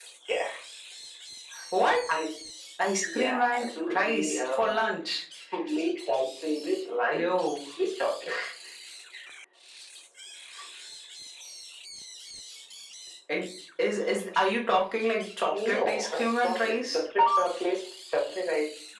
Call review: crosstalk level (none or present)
present